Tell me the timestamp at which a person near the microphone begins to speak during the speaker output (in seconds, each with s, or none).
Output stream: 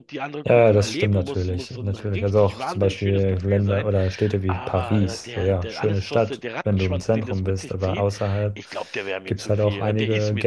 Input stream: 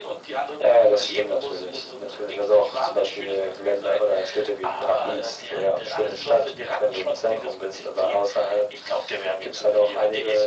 none